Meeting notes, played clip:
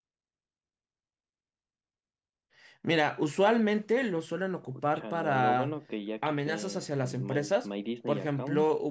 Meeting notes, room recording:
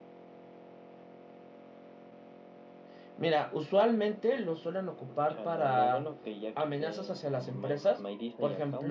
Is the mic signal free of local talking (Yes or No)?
Yes